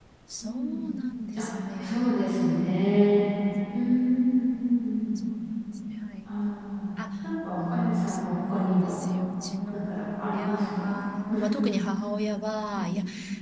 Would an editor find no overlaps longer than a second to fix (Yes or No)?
No